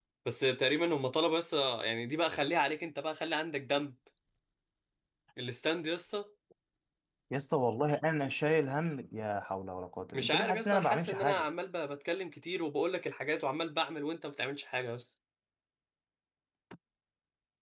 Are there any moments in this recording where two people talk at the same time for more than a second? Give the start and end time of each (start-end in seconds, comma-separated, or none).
10.1-11.4